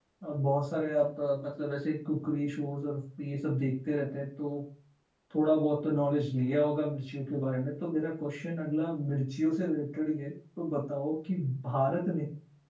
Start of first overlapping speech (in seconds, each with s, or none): none